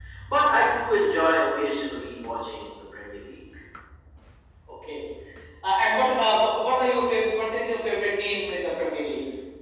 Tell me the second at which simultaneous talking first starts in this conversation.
none

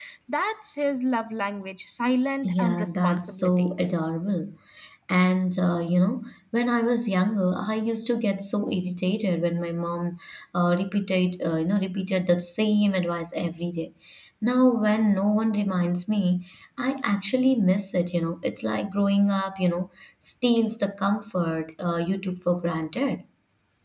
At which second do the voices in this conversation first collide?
2.4 s

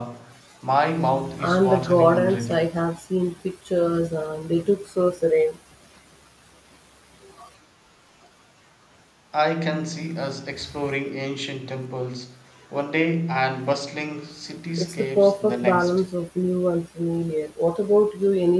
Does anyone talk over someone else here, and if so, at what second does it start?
1.4 s

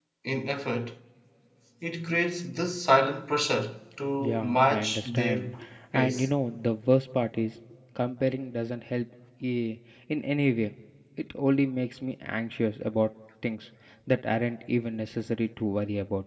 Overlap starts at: 4.2 s

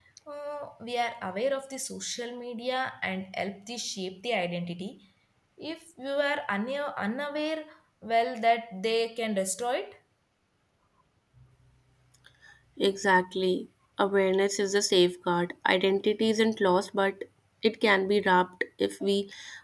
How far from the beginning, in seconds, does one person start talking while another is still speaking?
none

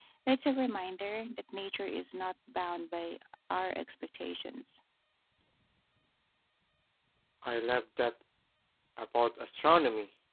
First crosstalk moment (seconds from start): none

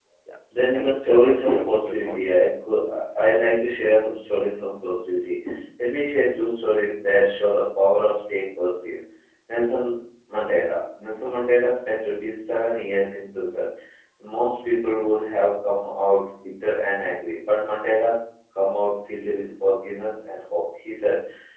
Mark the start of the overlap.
0.5 s

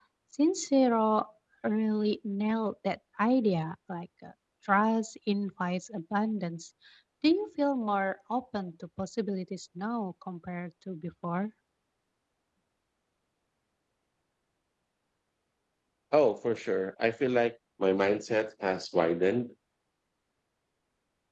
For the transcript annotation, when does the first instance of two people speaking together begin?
none

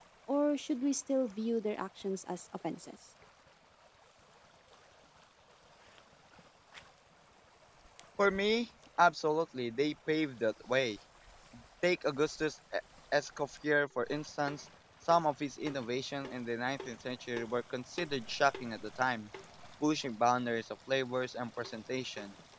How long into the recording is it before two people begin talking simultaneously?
none

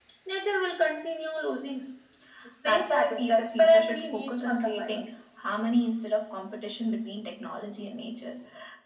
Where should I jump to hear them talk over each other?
2.6 s

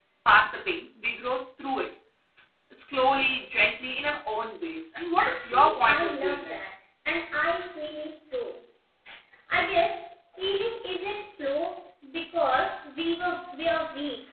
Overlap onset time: 5.2 s

